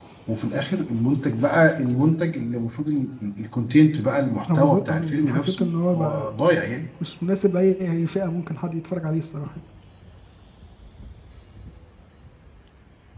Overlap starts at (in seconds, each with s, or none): 4.5 s